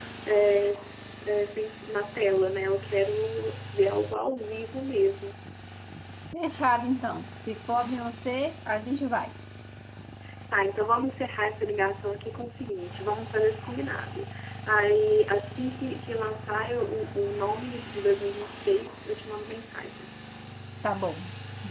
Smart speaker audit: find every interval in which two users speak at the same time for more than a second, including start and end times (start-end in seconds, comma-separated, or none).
none